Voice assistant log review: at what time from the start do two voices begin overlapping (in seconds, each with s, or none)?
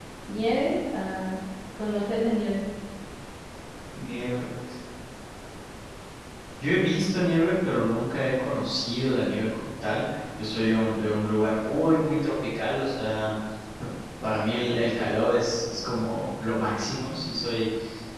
none